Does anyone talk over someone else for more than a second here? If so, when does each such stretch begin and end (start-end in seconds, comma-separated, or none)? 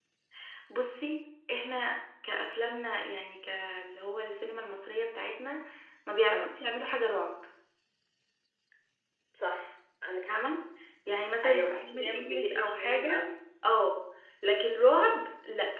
11.4-13.2